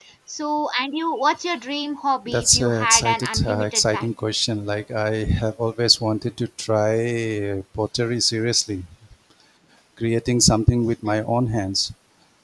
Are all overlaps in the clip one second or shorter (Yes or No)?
No